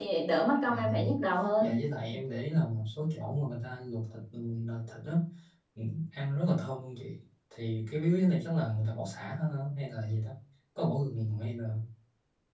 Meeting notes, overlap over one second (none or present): none